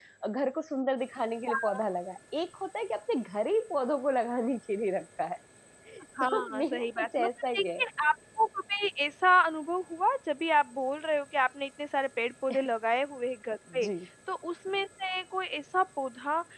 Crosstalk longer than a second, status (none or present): present